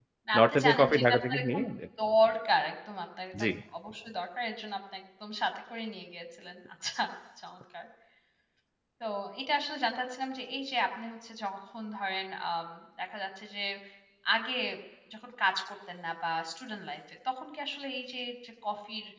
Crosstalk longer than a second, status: present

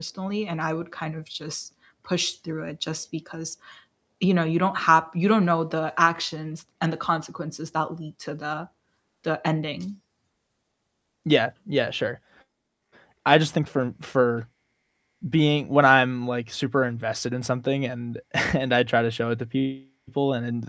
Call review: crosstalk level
none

